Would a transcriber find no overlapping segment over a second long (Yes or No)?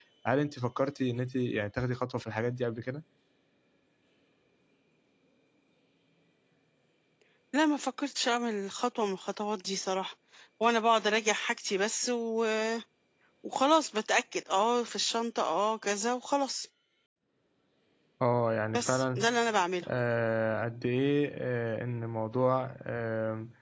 Yes